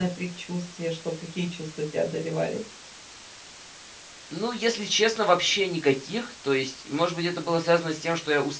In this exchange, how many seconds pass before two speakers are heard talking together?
none

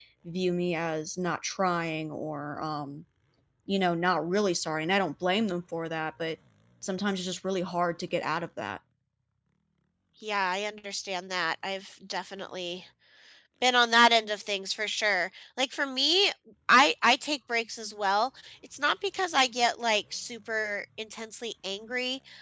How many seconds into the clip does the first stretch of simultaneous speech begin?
none

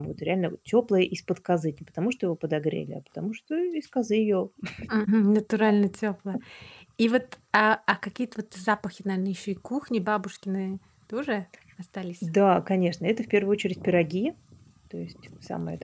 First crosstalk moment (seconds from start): none

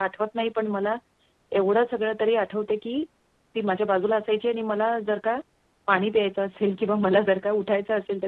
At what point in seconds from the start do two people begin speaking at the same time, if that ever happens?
none

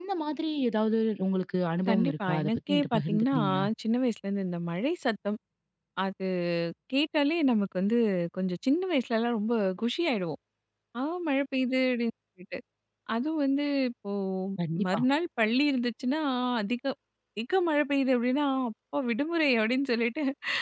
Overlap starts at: 1.9 s

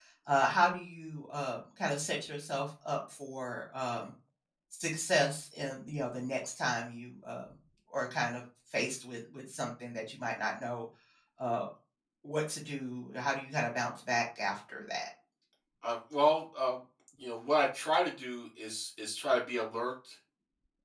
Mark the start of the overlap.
none

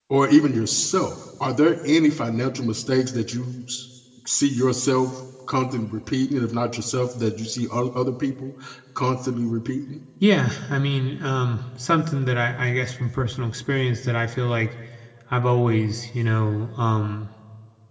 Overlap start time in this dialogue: none

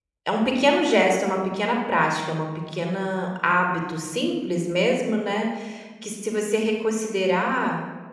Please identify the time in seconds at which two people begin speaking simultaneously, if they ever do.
none

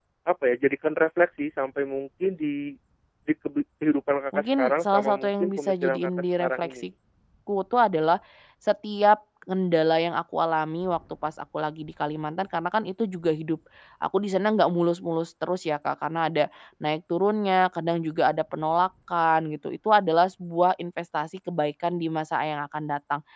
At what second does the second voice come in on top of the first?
4.3 s

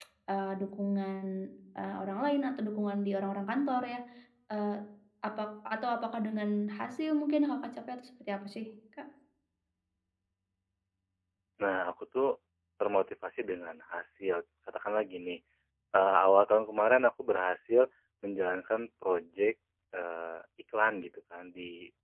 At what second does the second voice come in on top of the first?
none

